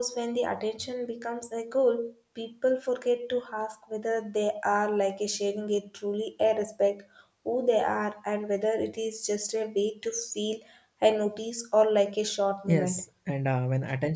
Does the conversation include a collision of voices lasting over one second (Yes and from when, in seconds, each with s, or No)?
No